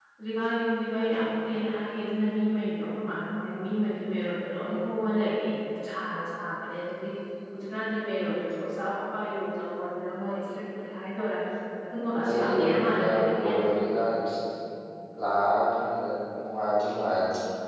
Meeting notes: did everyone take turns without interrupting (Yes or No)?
No